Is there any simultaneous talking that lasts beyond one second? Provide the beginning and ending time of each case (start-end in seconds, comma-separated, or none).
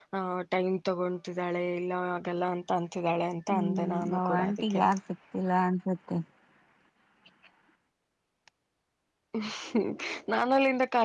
3.5-4.8